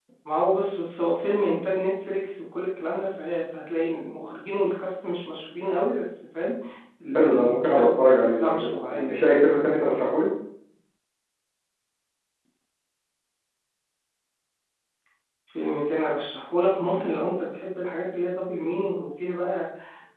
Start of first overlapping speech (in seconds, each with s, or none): 7.2 s